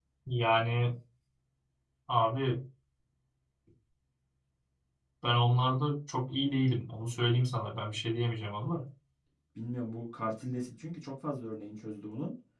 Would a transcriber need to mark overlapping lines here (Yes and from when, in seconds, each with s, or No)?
No